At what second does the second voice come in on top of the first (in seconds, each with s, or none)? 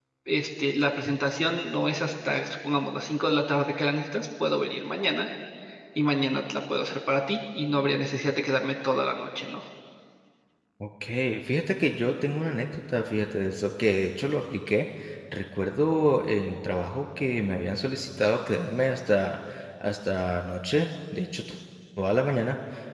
none